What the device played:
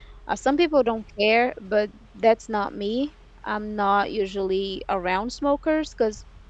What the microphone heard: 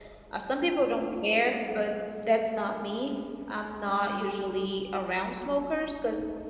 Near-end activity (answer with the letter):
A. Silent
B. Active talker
A